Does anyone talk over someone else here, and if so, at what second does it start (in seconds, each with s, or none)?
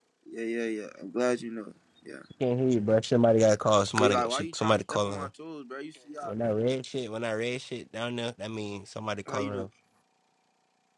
4.0 s